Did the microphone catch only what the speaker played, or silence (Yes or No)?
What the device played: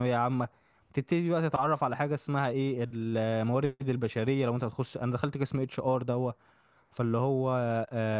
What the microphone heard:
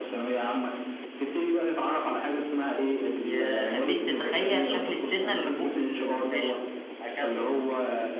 No